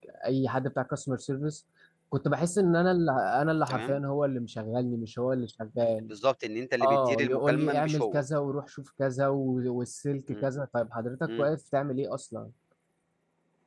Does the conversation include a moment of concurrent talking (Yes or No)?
Yes